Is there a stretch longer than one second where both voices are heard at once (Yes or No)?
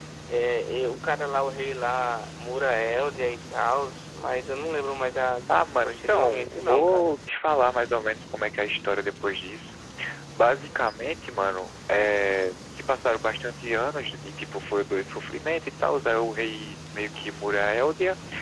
Yes